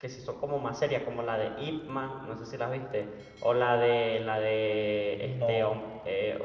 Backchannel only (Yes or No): Yes